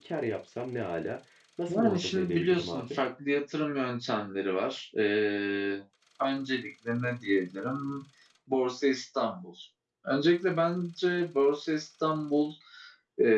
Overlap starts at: 1.7 s

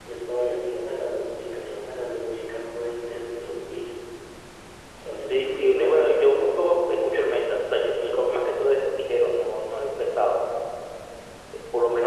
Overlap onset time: 5.3 s

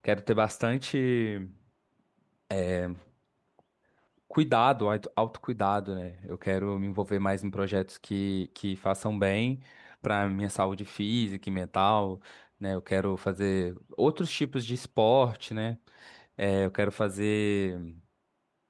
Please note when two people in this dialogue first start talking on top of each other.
none

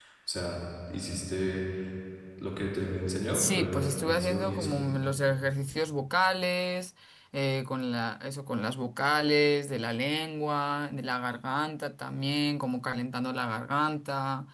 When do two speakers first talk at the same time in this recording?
3.3 s

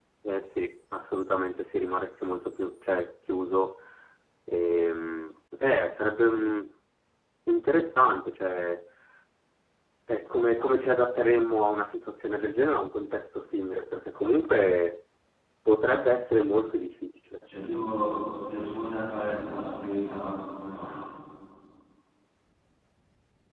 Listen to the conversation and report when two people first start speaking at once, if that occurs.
none

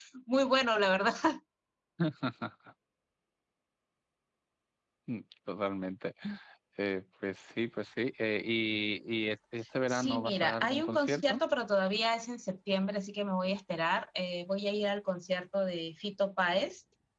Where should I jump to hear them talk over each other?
9.9 s

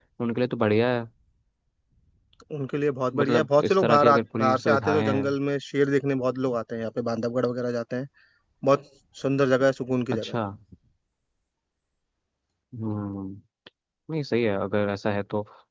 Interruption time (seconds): 3.1 s

